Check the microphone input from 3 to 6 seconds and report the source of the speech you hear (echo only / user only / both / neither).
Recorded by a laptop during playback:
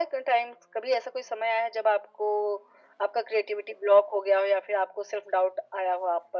echo only